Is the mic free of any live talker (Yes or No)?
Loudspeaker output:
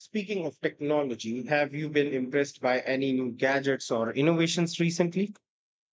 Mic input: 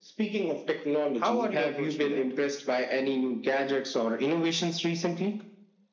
No